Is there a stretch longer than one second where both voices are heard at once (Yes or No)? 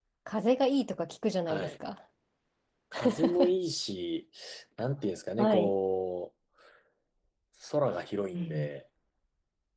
No